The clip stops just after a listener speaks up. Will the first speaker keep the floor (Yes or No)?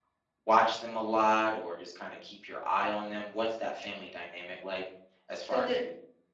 No